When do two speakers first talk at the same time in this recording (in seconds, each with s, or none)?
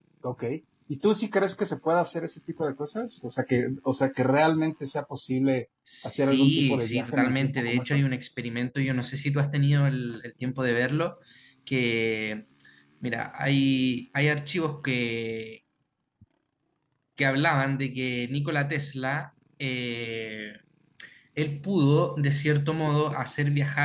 5.9 s